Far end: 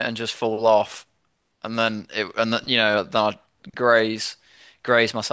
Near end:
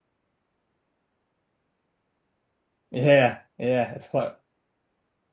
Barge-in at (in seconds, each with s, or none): 2.9 s